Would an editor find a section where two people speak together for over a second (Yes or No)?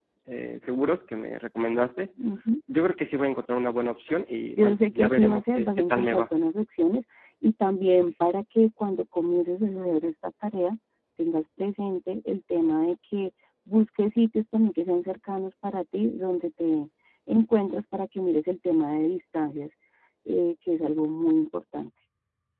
Yes